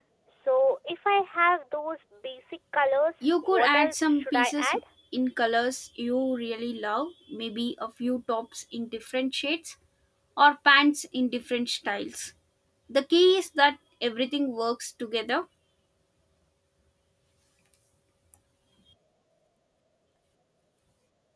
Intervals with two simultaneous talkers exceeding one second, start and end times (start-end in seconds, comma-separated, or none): 3.2-4.7